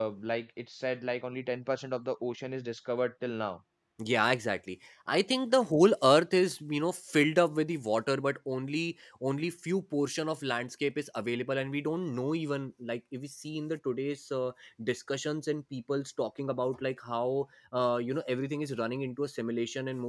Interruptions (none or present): none